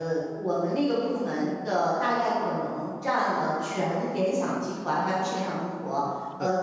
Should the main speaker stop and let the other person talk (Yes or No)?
No